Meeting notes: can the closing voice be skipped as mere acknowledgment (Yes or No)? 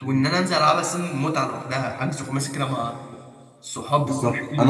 No